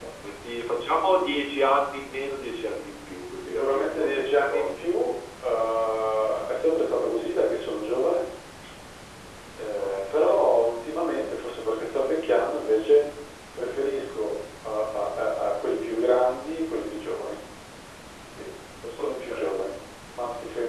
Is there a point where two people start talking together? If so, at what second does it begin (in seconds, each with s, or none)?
3.5 s